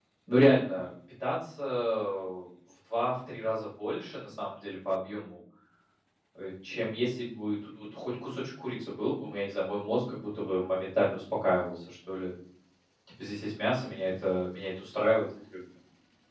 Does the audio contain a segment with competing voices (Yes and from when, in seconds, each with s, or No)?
No